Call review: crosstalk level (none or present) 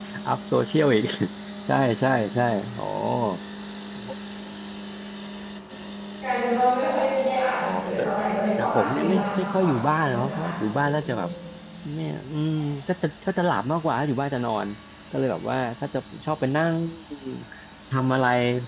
present